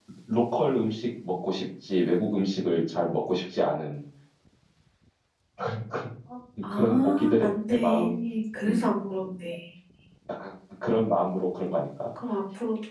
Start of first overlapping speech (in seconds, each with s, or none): 6.7 s